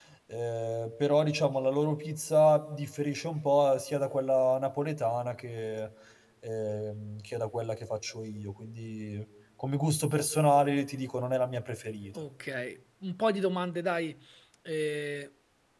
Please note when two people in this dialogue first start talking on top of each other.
none

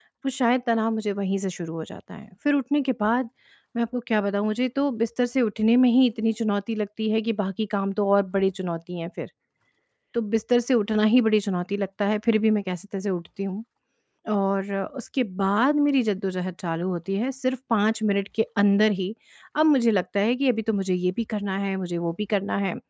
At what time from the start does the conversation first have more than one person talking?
none

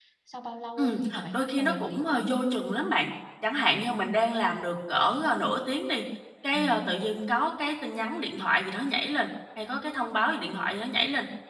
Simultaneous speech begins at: 0.8 s

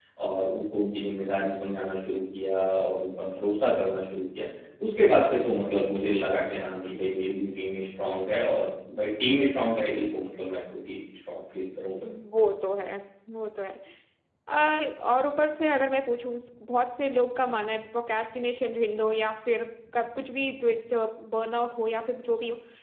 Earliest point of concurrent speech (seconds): none

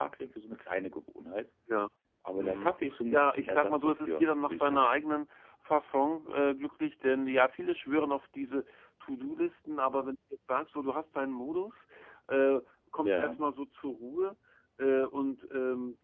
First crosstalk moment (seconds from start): 2.4 s

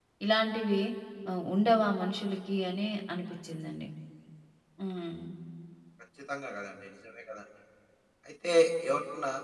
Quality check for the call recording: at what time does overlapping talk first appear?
none

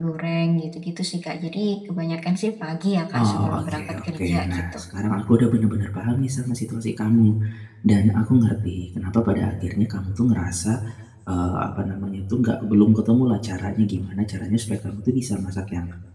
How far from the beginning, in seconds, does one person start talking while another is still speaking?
3.1 s

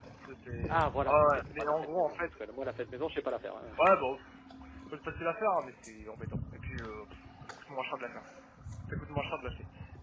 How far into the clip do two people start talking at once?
0.7 s

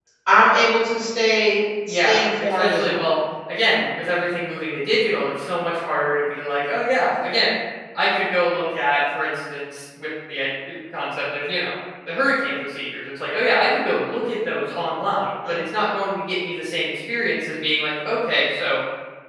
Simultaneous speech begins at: 1.9 s

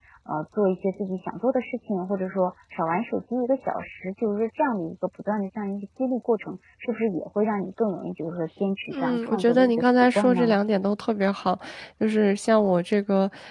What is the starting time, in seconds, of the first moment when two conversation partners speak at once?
8.9 s

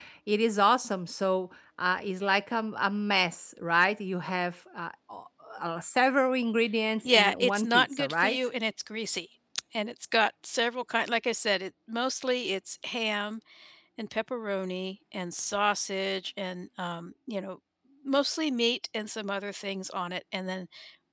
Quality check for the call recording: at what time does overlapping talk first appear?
7.0 s

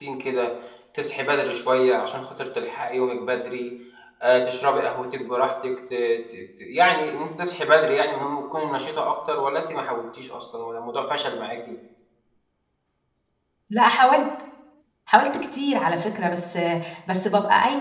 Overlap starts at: none

